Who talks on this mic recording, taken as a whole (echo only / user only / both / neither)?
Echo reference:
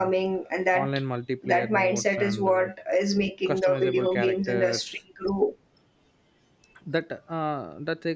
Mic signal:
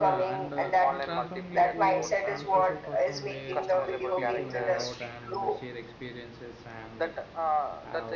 both